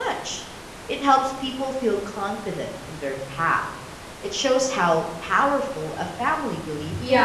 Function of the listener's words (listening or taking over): taking over